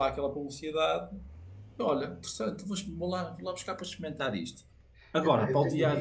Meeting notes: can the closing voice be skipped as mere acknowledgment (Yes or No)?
No